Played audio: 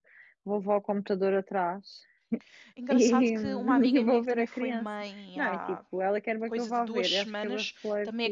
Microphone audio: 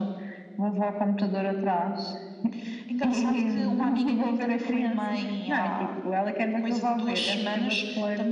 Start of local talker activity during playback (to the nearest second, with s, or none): none